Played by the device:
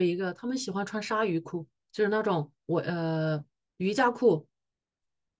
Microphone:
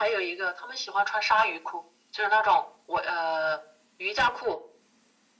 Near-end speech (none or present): none